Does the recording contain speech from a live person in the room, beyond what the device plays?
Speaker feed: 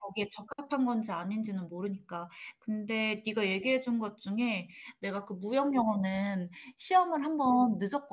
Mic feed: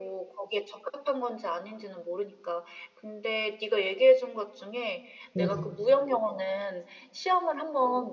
Yes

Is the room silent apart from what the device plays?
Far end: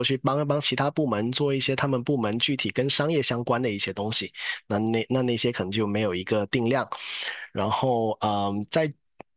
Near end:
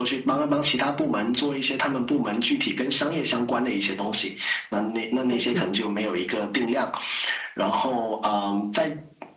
No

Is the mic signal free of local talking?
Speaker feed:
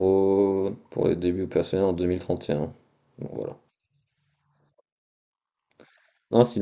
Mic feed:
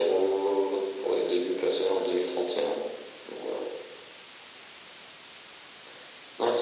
Yes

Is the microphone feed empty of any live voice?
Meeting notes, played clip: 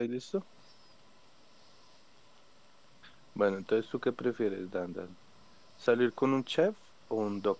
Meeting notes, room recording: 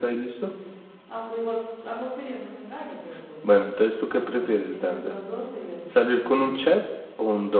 No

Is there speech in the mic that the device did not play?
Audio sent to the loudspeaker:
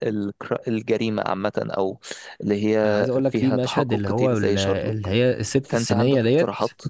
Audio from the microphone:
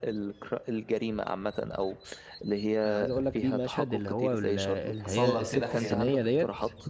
Yes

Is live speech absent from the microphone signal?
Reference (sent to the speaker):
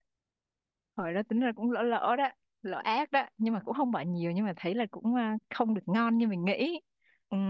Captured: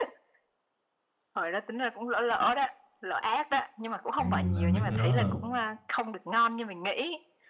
No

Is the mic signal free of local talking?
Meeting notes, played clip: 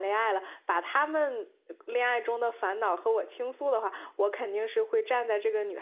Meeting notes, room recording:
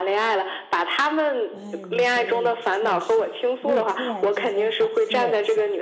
No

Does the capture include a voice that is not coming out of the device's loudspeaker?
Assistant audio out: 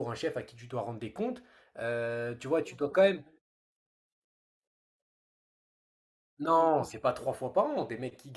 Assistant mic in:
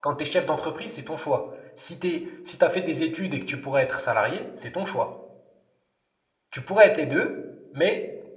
Yes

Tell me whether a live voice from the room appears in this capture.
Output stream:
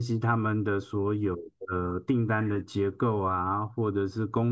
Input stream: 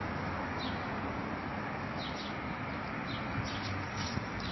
No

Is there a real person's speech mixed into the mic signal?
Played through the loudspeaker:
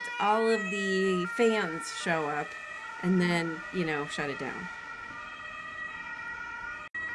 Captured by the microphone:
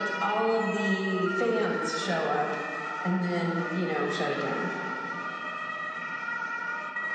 No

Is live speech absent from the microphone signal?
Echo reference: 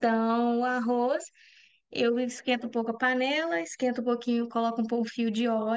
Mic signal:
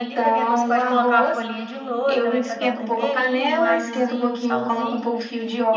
No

